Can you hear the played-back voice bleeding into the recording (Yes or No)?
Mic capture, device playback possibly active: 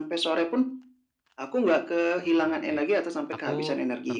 Yes